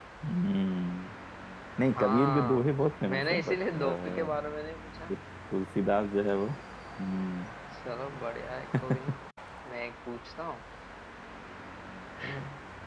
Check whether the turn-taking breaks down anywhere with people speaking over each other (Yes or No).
Yes